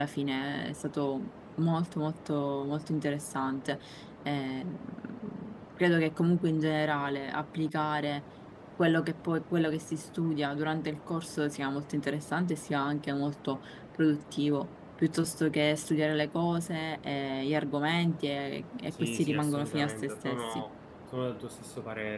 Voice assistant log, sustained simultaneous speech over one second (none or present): present